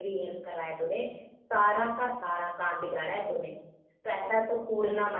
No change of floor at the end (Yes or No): Yes